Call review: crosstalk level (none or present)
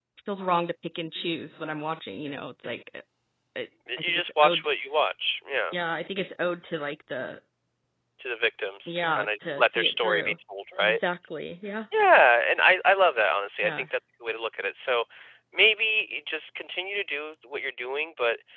present